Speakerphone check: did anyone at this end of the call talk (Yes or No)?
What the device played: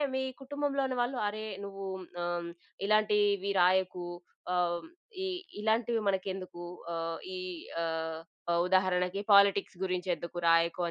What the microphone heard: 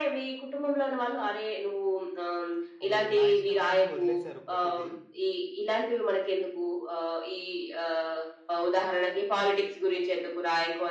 Yes